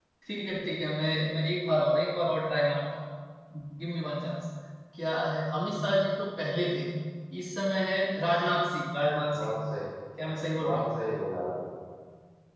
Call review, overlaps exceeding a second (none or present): none